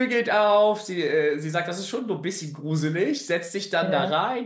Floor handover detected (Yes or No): No